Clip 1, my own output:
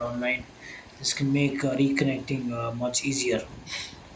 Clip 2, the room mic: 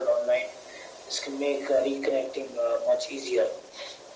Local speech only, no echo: none

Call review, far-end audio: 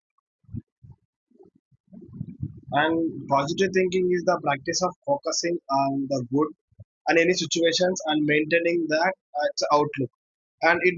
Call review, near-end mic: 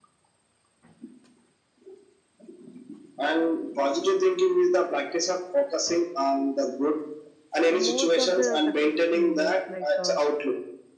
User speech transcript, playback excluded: most of the successful leaders, like uh,

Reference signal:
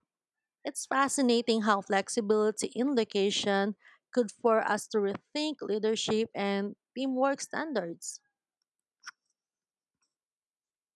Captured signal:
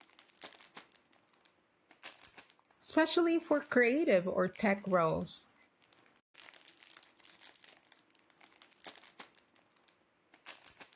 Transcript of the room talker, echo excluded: especially for creative or tech roles.

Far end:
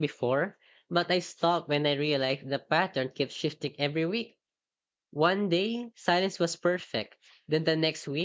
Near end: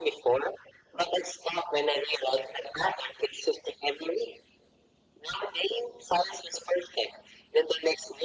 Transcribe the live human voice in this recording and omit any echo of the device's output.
none

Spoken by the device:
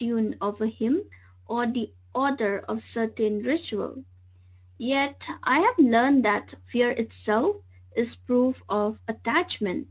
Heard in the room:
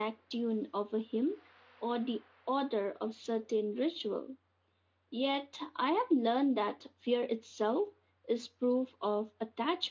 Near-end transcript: none

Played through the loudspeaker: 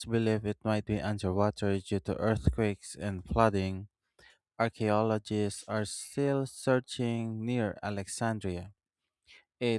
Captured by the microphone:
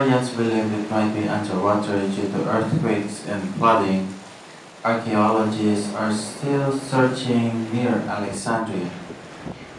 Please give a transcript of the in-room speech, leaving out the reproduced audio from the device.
none

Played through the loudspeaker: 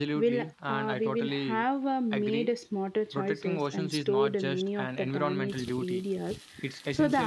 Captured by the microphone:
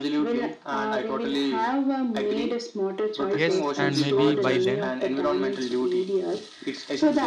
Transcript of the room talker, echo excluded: Yes, and maybe by then,

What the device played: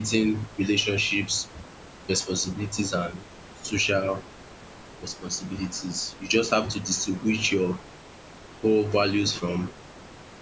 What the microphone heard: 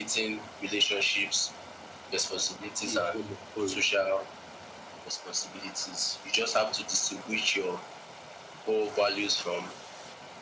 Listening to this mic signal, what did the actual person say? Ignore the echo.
be a form of courage?

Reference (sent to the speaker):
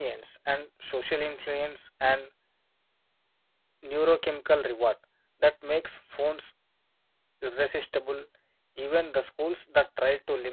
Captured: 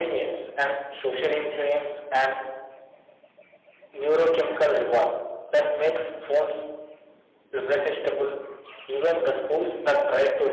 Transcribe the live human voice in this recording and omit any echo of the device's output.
none

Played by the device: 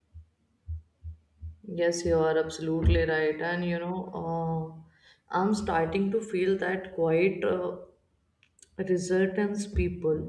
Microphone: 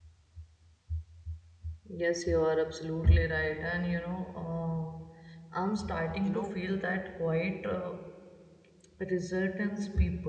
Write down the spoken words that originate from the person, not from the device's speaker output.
you know.

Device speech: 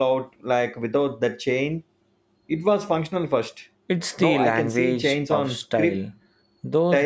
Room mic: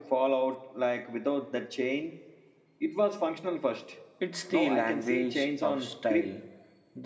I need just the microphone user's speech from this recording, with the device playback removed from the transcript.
none

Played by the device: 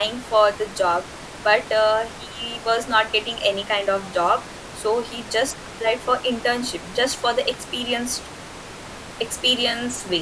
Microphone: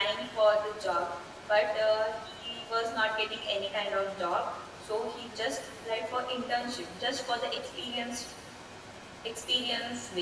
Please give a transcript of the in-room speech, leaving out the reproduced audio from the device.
none

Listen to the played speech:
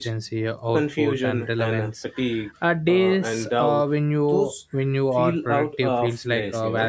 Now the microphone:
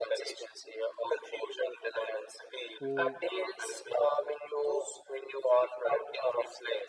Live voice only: who

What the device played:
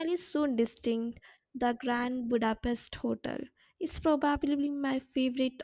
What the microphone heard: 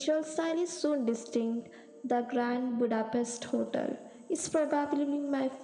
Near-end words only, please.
none

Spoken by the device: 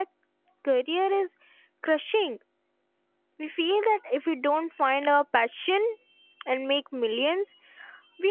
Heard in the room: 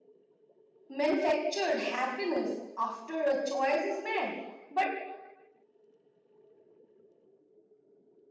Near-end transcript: manufactured happiness after a choice is made. But

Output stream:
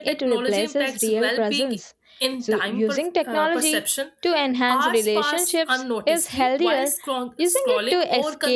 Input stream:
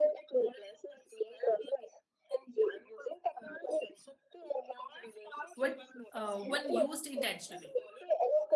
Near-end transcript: when, uh, when used intentionally.

